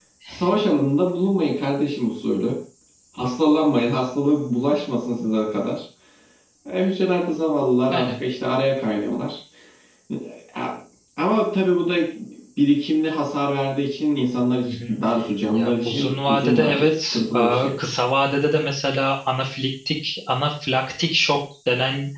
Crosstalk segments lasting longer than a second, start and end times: 15.5-17.7

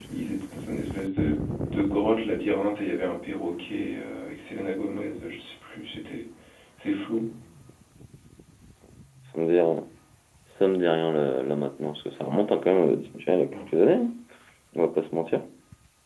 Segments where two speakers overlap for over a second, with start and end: none

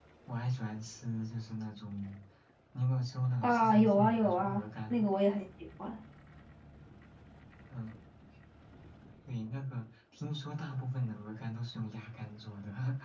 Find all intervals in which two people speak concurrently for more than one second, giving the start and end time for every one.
3.4-5.0

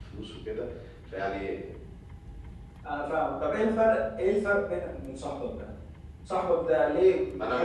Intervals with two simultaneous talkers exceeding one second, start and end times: none

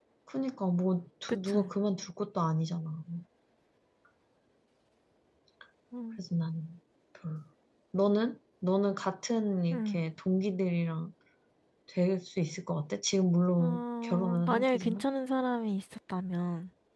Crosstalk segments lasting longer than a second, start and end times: 13.6-15.0

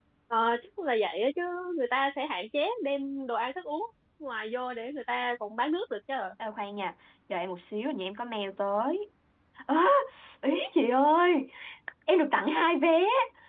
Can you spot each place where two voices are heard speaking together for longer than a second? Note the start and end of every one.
none

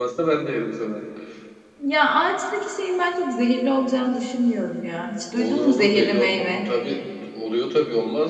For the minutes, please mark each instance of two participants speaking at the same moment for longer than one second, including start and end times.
5.3-6.7

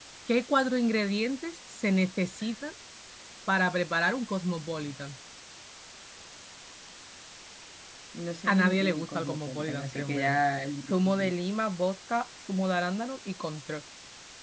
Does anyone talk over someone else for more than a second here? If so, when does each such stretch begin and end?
8.4-10.4

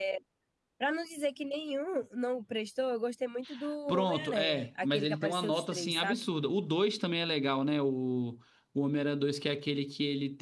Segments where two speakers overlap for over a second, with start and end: 3.9-6.2

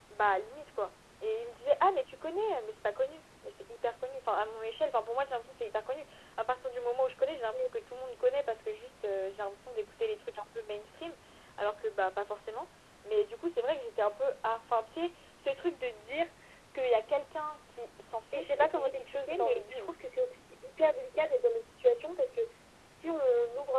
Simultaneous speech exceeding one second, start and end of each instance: 18.3-19.9

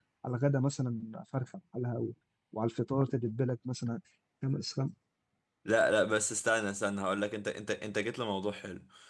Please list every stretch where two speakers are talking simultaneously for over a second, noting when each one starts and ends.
none

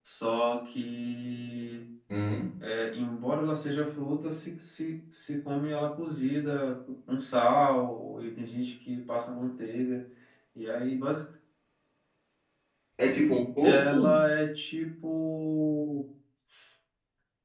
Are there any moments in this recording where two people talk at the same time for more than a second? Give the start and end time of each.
none

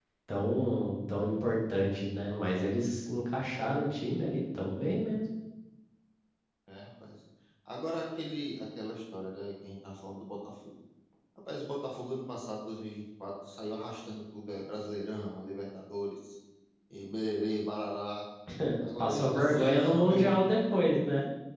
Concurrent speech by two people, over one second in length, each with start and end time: 19.0-20.4

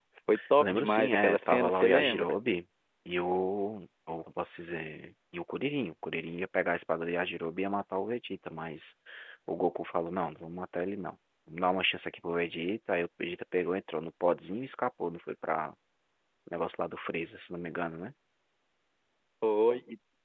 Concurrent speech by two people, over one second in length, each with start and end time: 0.6-2.4

